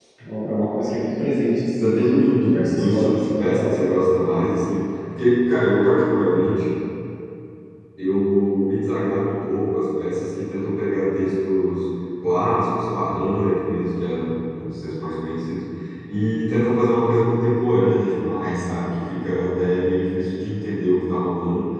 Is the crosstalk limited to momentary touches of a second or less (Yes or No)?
No